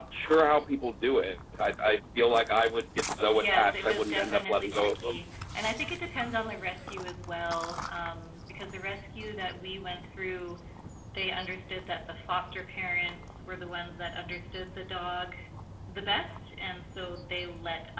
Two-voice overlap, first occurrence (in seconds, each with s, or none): 3.3 s